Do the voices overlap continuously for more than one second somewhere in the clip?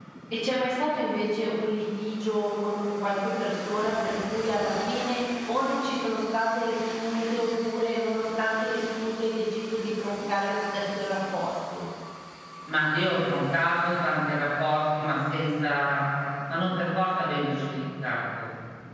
No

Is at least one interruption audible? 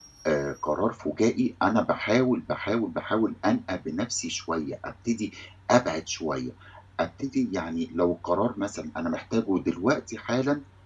No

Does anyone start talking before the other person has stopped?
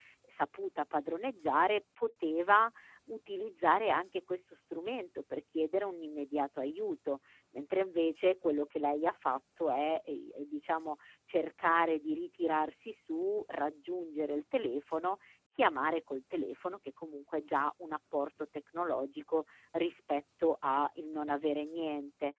No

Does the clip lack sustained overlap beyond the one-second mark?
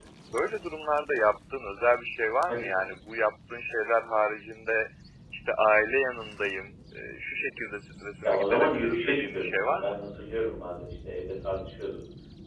No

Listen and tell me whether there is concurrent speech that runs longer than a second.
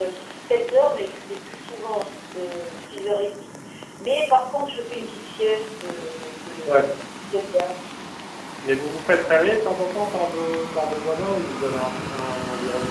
No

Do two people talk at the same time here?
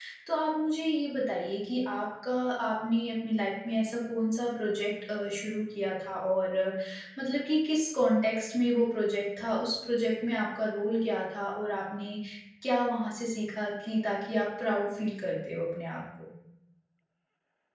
No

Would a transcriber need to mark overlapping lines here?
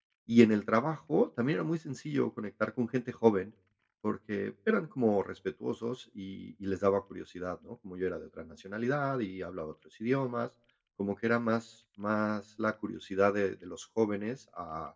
No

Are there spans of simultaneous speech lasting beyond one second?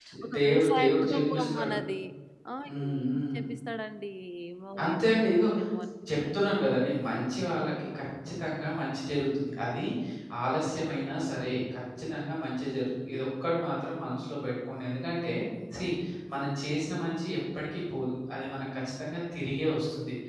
Yes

